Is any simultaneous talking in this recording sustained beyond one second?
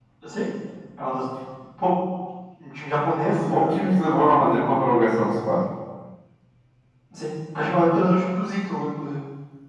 No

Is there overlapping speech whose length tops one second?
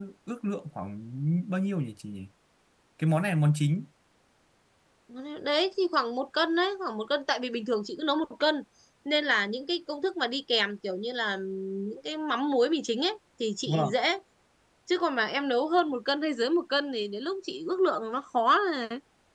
No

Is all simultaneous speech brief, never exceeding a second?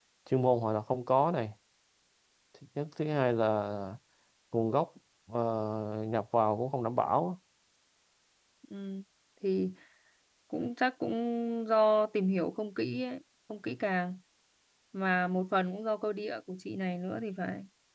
Yes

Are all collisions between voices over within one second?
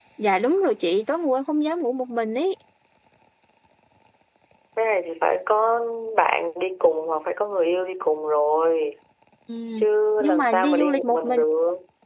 No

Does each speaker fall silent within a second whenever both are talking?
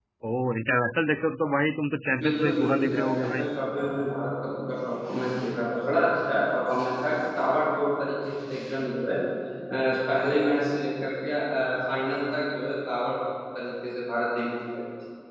No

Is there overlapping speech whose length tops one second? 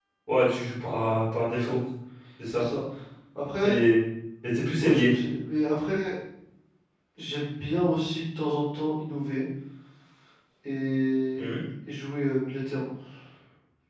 No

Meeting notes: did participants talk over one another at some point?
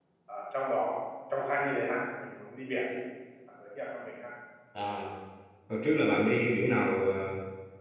No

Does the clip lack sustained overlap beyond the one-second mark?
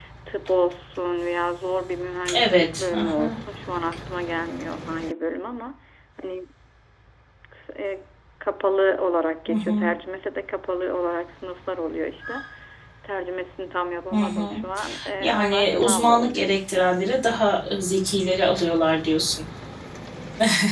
No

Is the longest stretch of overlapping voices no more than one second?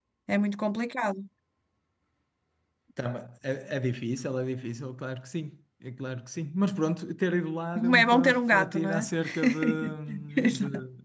No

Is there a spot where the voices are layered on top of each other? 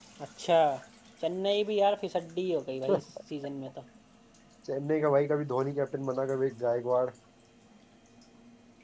No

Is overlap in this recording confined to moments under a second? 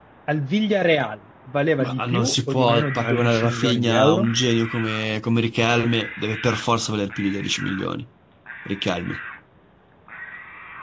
No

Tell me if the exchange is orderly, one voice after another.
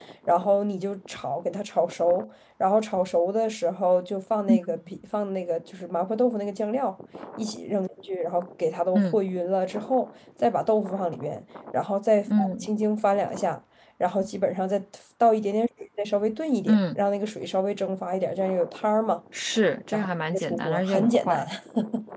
No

